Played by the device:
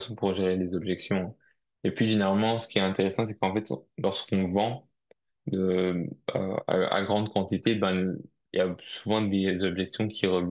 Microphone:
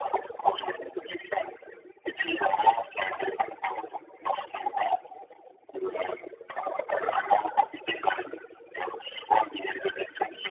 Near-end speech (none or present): none